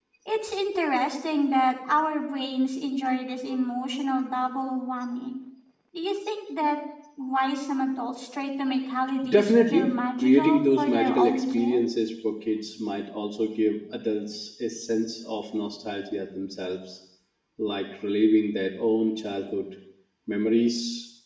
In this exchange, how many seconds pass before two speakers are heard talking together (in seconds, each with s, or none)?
9.2 s